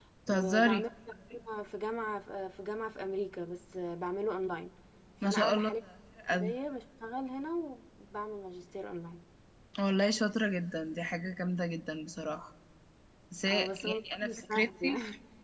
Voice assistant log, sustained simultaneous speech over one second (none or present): present